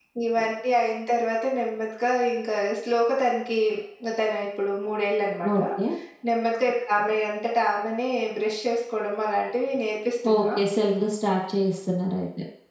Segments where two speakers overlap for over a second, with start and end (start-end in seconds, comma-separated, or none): none